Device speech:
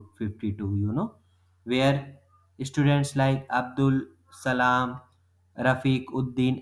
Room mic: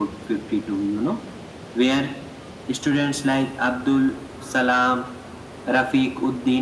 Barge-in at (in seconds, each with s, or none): none